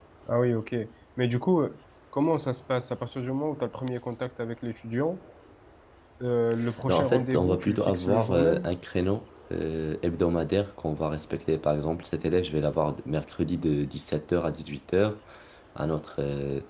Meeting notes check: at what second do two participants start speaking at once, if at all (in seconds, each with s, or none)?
6.9 s